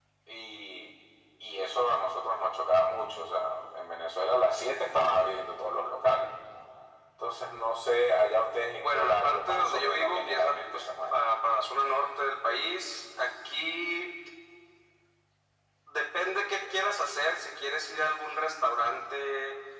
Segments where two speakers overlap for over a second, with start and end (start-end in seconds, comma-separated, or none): 8.8-11.2